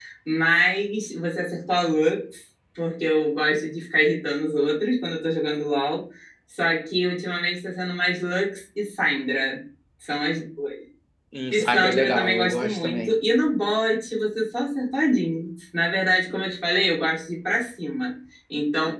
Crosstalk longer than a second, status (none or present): present